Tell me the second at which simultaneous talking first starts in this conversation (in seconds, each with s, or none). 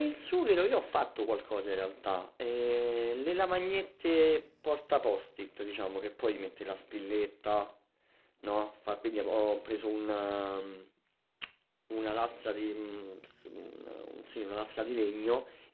none